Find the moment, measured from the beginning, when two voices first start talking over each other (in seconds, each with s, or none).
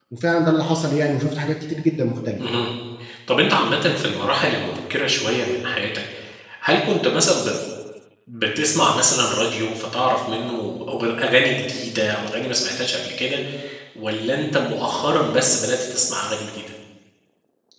none